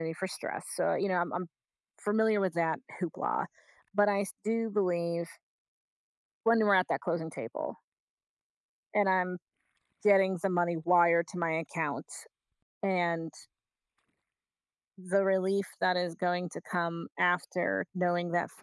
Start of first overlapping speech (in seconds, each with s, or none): none